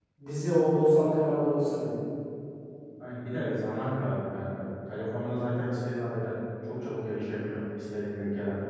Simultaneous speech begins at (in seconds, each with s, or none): none